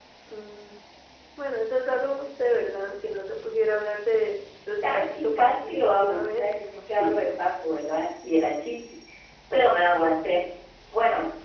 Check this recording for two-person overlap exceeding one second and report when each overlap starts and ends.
4.8-6.5

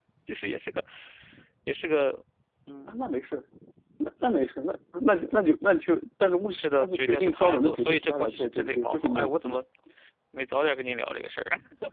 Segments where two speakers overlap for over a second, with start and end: 6.5-9.6

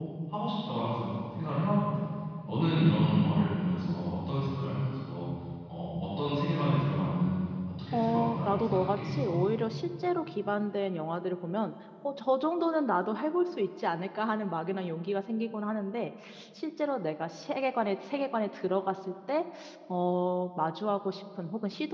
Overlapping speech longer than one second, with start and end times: 7.9-9.3

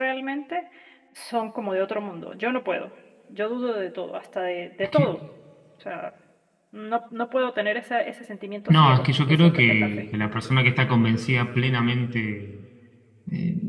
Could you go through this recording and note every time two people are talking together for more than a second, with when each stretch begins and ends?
8.7-10.0

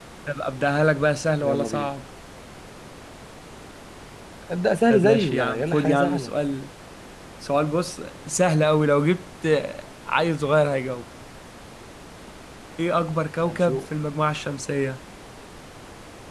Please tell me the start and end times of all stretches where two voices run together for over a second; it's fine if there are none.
4.9-6.3

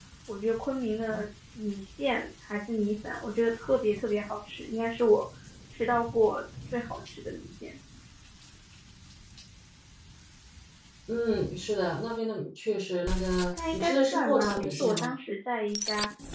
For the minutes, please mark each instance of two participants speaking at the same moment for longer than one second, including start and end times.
13.7-15.1

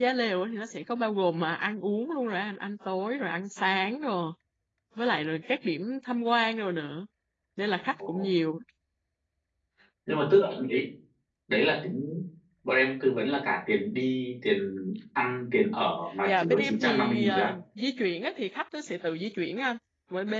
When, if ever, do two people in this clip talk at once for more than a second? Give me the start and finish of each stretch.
16.3-17.5

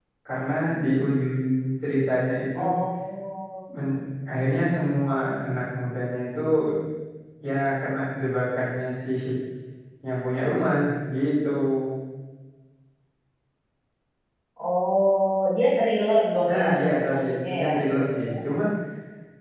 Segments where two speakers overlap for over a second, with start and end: 16.4-18.3

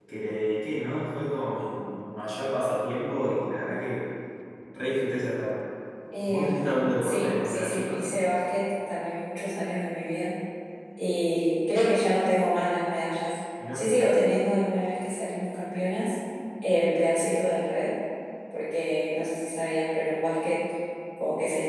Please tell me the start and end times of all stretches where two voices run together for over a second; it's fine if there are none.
6.2-8.0

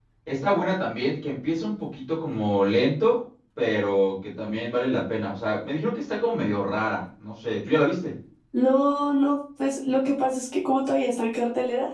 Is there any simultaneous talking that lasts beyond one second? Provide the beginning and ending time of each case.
none

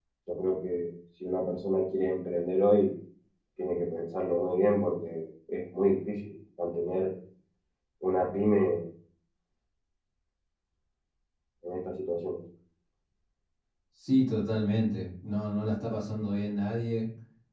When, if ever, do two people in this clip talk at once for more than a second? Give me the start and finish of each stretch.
none

